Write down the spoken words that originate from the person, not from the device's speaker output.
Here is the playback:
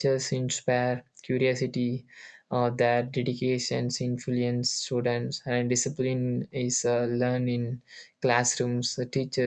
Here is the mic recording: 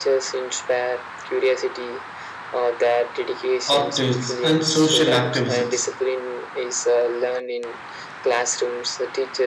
artists, and social activists.

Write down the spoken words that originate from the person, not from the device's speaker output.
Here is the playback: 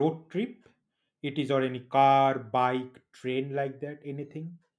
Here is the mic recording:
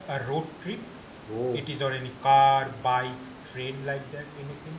Whoa.

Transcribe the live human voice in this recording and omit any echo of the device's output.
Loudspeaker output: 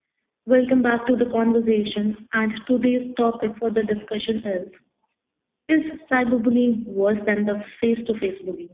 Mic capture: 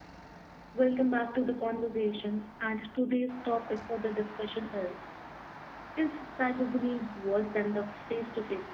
none

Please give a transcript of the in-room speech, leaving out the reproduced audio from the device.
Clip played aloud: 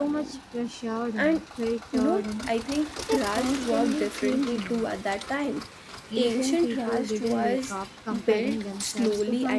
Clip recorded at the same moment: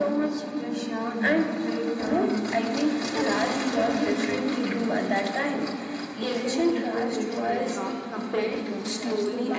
none

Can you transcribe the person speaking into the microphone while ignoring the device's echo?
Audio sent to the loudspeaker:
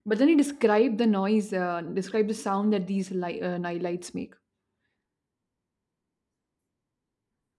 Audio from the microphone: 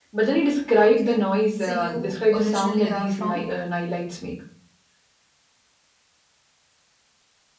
Okay, so you originally are from?

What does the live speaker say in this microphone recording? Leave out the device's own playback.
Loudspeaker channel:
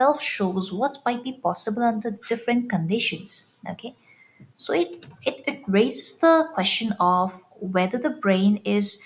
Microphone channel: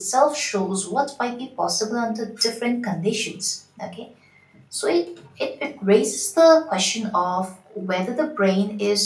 none

